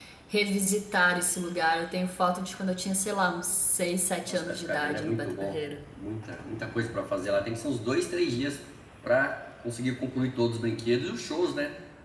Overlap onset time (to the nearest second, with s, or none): 4 s